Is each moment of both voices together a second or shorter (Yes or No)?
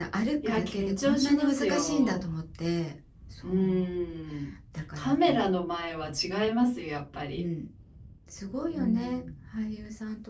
No